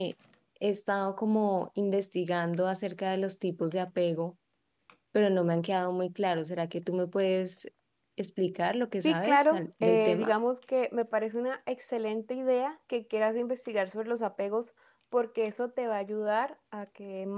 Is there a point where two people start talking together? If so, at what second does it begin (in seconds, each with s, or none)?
9.0 s